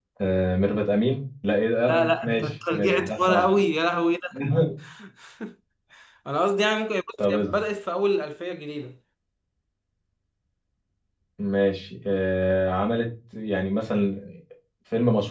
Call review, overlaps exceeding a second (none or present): present